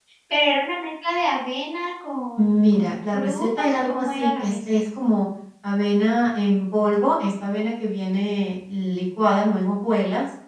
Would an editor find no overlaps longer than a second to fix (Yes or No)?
No